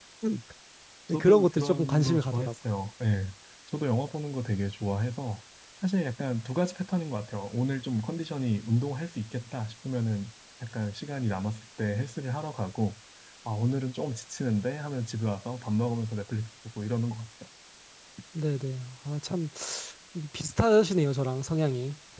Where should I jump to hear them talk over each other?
1 s

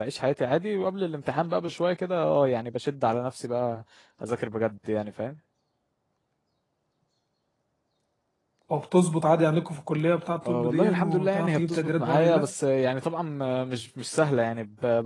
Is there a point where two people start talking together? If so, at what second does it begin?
10 s

